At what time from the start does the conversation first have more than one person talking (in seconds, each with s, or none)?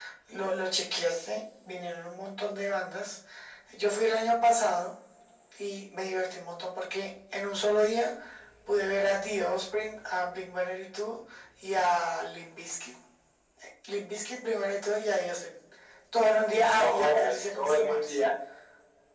16.7 s